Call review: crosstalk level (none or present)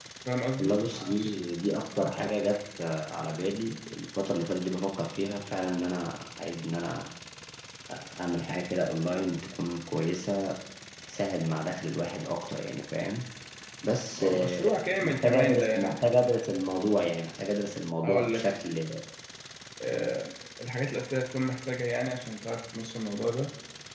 present